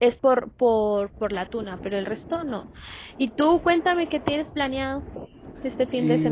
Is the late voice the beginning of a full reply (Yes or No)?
Yes